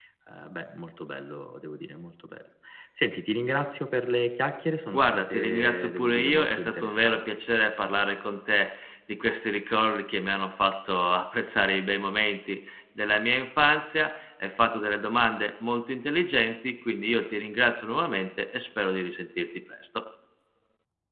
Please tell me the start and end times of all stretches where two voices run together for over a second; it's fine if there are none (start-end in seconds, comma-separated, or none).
4.9-7.4